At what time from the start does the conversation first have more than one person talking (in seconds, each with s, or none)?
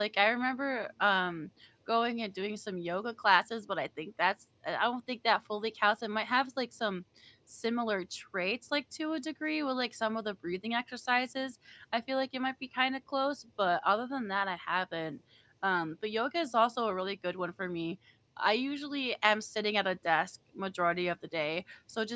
none